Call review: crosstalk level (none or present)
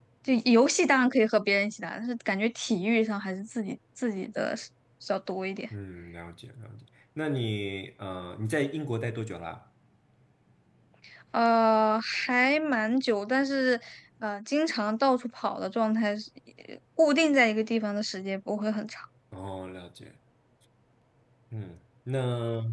none